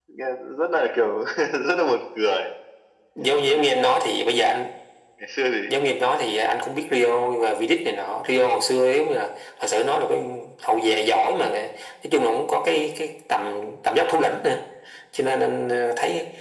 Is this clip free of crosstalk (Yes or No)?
Yes